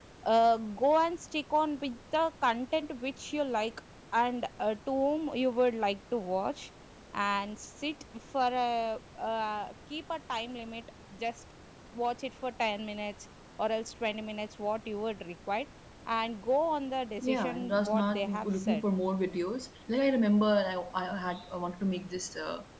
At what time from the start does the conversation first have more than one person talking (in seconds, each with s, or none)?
17.2 s